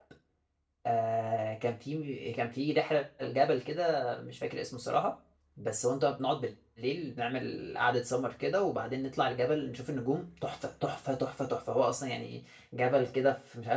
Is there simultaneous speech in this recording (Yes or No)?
No